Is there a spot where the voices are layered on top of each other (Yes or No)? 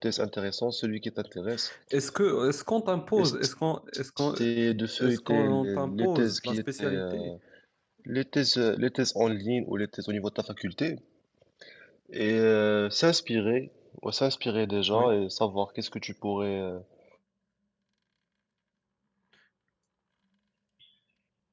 Yes